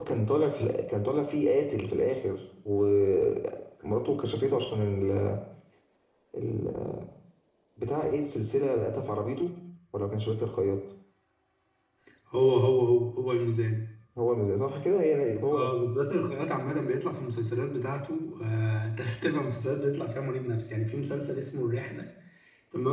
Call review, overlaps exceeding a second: none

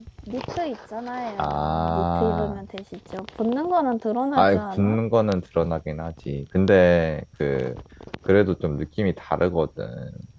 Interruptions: present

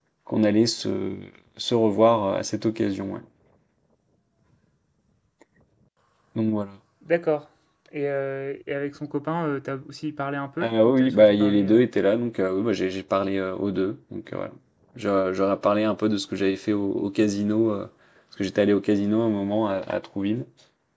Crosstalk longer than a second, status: present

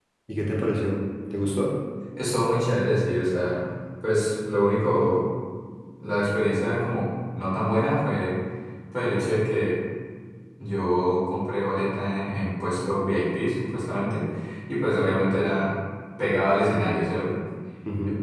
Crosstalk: none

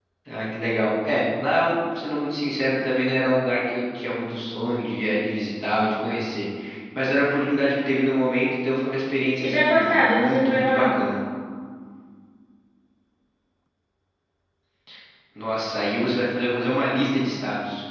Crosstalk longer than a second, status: present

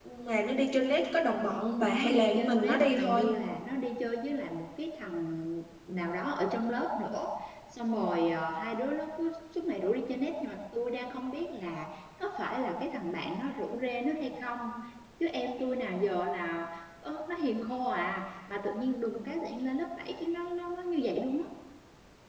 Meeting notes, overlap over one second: present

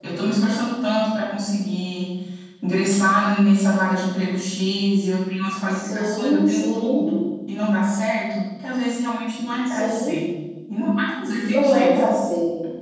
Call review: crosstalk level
present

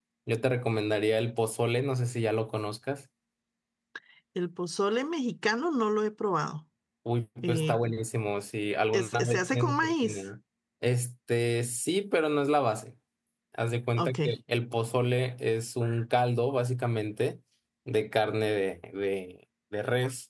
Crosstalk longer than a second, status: present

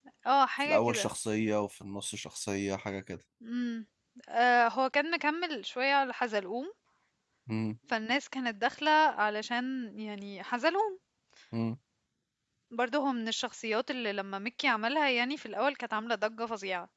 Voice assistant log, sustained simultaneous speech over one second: none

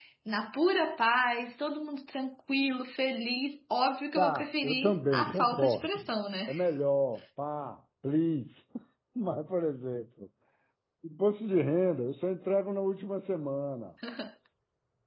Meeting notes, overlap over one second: present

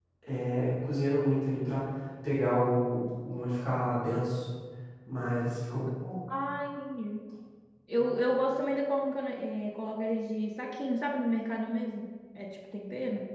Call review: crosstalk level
none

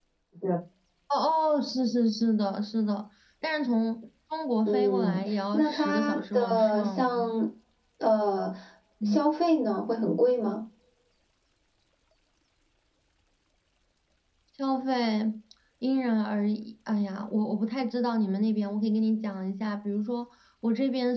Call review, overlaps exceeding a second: present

